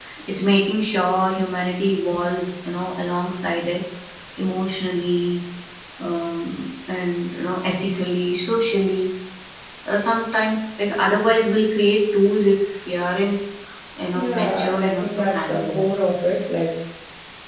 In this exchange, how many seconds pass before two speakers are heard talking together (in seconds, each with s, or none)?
14.1 s